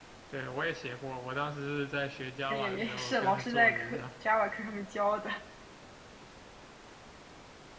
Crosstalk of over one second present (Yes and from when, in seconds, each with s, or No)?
Yes, from 2.5 s